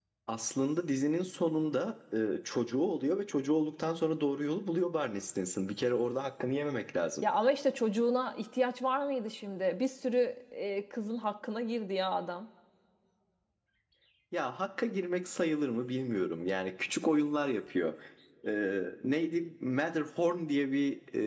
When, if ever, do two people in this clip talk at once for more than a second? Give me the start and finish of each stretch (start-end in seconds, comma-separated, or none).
none